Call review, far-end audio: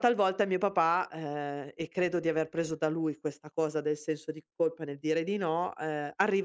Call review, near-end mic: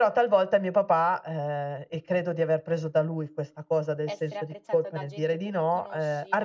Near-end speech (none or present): present